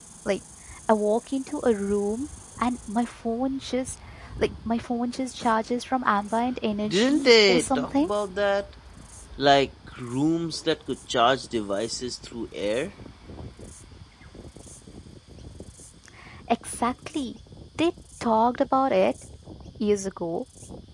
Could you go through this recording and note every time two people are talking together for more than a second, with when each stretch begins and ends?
6.9-8.1

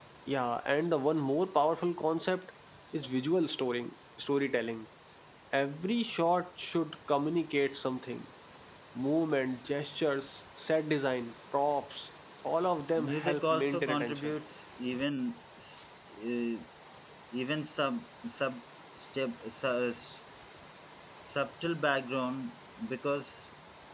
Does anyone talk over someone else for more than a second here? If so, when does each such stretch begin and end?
13.0-14.4

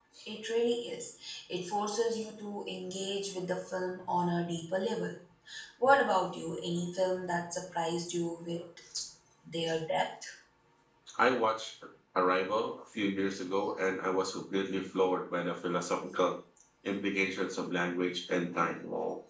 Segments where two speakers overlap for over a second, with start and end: none

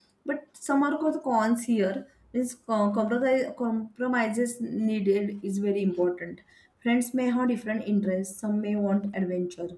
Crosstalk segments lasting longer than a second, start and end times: none

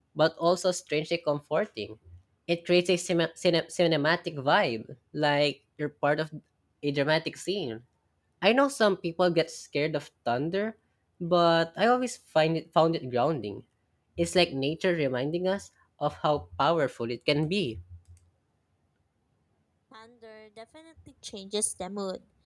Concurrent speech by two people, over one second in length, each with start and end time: none

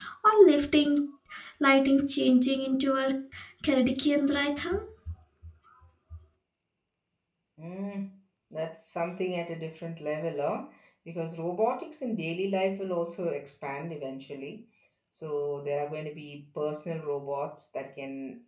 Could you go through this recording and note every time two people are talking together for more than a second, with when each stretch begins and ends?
none

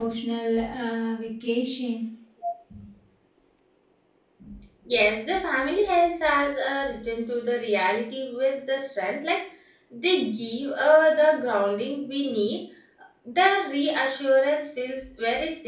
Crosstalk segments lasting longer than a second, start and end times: none

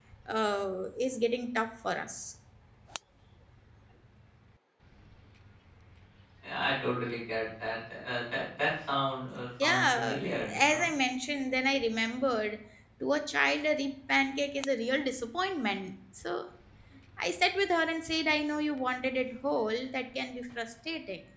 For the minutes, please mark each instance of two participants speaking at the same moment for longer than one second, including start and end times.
9.6-10.9

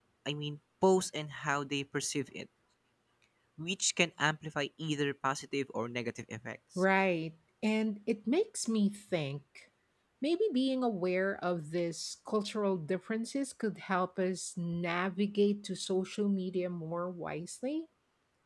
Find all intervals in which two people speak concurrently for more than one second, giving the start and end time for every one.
none

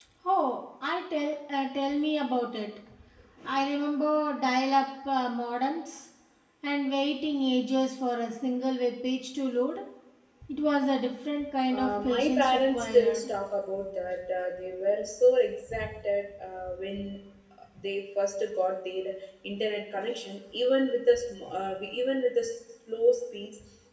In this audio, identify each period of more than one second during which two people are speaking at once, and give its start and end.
11.7-13.2

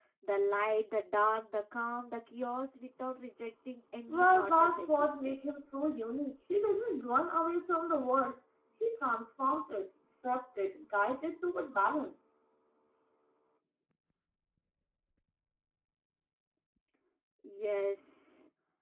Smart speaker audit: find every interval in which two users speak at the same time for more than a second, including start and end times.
4.1-5.4

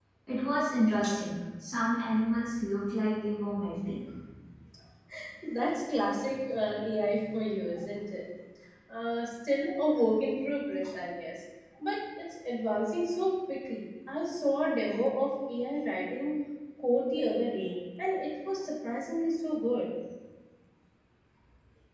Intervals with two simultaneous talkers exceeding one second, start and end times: none

